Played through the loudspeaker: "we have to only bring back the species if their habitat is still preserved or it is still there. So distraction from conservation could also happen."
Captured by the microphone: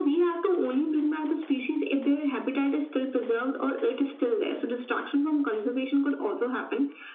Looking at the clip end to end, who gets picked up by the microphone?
echo only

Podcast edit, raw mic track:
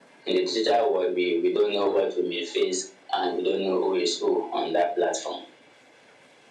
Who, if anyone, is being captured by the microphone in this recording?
echo only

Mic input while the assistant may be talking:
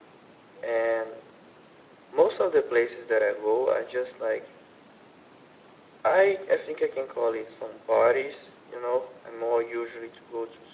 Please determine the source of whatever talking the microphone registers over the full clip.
echo only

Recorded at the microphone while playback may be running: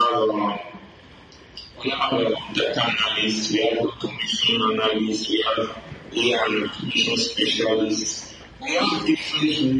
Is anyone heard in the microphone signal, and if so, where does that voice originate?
echo only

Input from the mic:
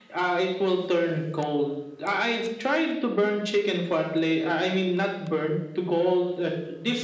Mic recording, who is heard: echo only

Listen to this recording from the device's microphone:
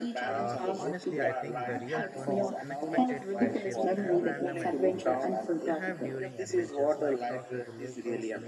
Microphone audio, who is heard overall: both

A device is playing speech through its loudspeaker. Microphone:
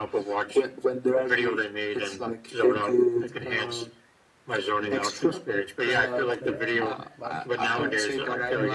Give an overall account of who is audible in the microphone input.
both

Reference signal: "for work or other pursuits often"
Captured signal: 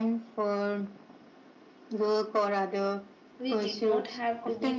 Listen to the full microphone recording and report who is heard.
both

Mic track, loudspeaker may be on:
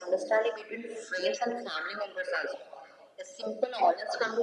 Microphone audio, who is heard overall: echo only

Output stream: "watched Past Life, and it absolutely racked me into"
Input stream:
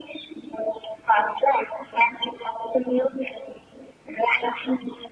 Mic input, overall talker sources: echo only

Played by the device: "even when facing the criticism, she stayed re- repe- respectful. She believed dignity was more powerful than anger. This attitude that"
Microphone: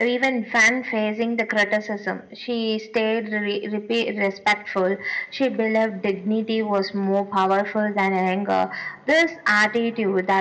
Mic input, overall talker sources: echo only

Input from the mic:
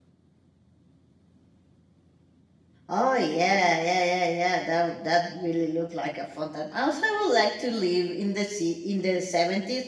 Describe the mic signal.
user only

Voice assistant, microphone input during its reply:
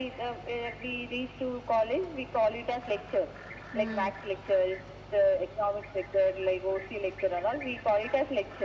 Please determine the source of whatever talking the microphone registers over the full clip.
both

